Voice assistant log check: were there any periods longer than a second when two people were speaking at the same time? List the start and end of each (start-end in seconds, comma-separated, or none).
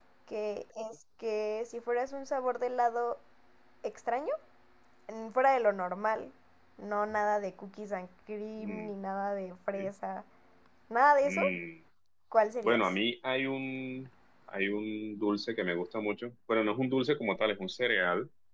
none